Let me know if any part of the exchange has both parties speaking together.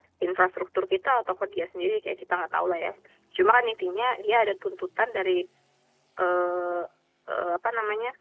No

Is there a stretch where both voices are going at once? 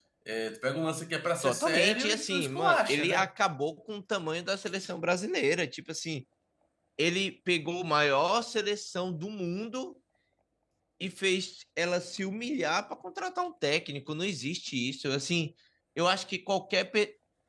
Yes, from 1.4 s

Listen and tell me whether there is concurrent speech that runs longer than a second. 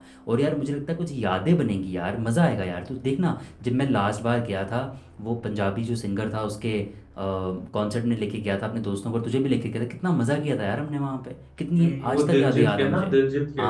Yes, from 11.8 s

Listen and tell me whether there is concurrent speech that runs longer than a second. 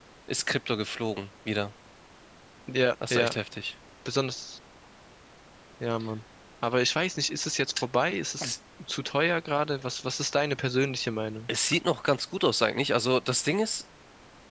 No

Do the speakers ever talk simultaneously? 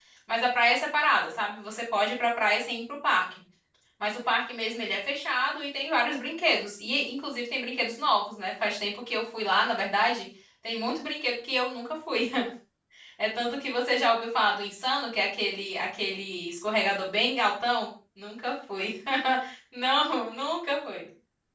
No

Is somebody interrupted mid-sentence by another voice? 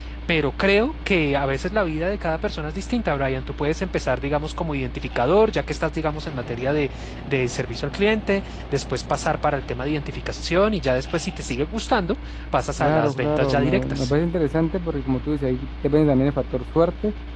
Yes, from 12.8 s

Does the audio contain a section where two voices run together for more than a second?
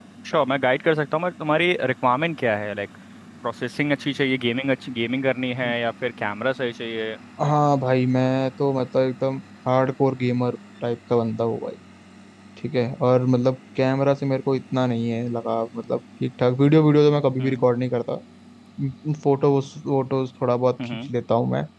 No

